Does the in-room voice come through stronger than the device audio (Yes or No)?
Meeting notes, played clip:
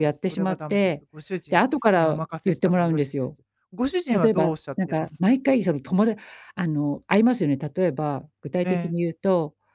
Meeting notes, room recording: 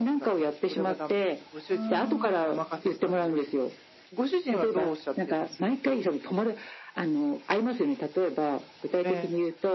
No